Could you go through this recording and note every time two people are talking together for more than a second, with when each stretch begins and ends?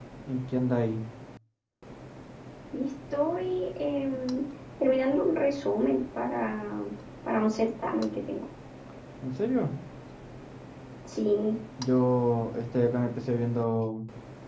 none

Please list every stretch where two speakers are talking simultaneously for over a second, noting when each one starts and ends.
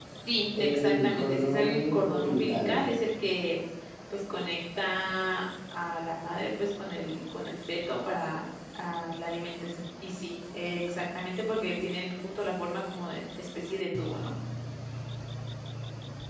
0.6-2.9

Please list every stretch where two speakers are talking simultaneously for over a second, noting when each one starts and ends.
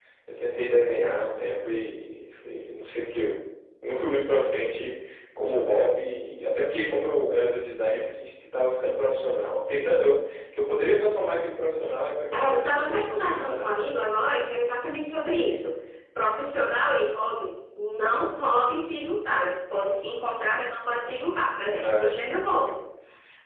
12.3-13.7

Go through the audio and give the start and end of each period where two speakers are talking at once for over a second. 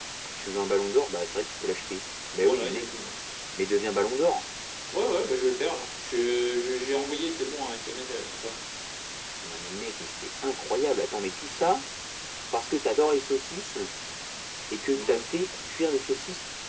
none

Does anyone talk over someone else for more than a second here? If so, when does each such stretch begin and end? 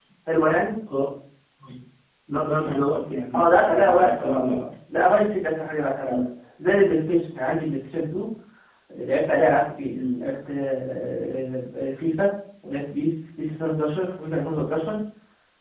3.3-4.6

